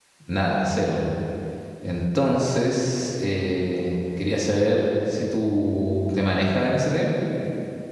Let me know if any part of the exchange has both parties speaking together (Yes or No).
No